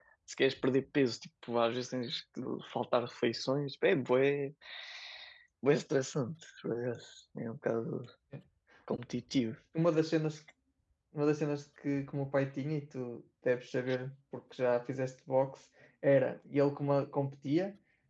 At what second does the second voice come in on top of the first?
none

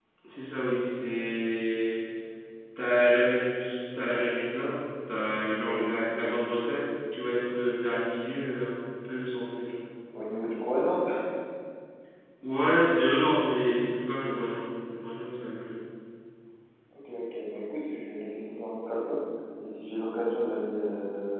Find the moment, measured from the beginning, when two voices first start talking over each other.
none

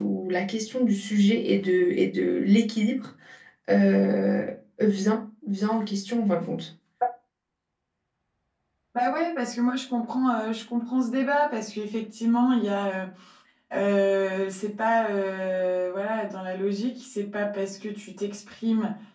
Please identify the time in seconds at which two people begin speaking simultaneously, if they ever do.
none

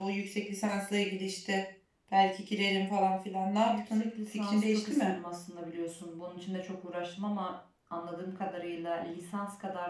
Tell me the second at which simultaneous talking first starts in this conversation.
3.6 s

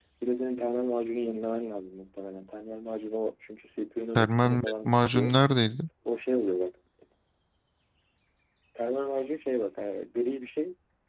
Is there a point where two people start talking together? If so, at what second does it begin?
4.2 s

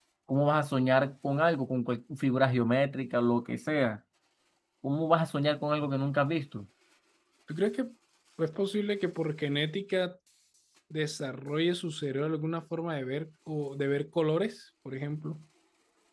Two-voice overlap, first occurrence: none

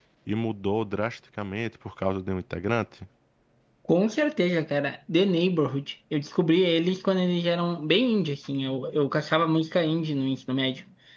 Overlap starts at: none

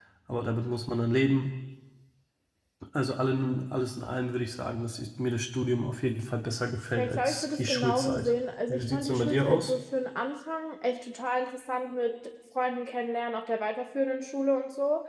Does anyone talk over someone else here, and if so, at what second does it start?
7.0 s

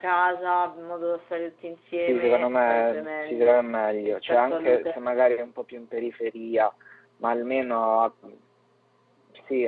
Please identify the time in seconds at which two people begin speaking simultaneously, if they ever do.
2.0 s

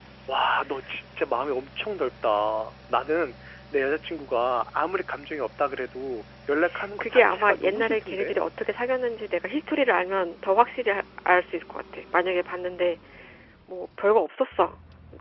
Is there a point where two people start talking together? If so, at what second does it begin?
7.0 s

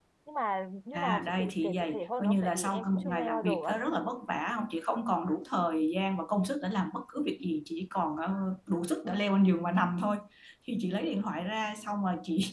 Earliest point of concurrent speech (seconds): 0.9 s

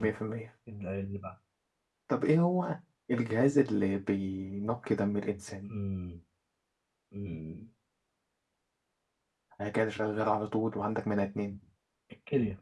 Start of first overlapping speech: none

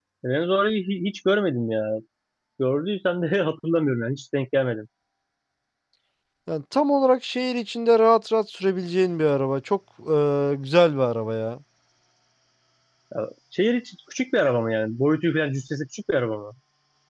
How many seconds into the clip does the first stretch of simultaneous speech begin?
none

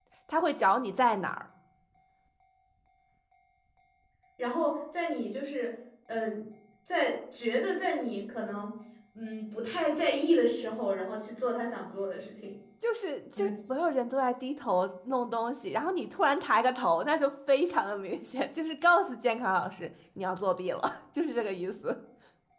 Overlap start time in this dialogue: none

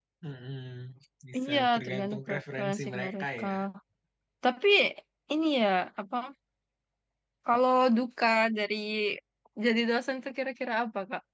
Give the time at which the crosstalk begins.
1.4 s

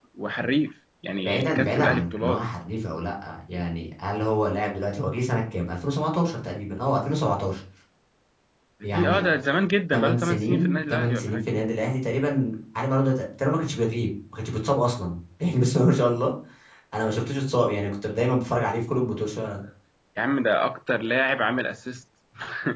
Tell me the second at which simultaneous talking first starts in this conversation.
1.2 s

